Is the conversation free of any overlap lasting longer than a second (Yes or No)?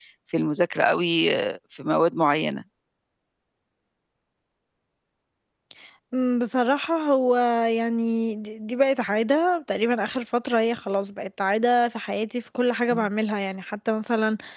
Yes